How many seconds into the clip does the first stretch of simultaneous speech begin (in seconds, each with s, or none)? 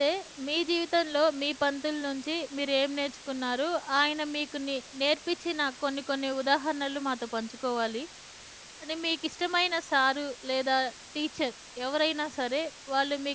none